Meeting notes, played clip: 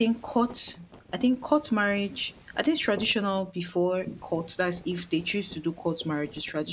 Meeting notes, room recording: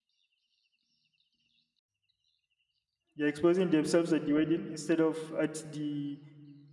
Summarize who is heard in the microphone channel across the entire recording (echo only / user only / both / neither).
user only